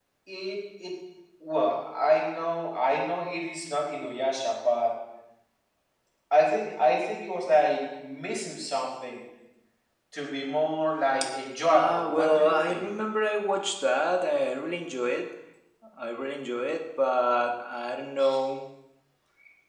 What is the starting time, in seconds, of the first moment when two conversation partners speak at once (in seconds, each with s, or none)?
11.7 s